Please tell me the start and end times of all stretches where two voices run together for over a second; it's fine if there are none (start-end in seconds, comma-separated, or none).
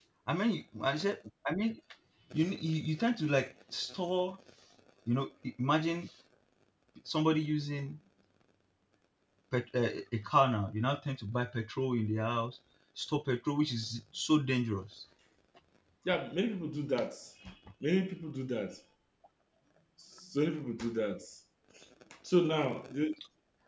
none